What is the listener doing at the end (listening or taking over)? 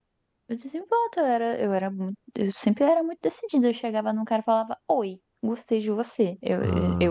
taking over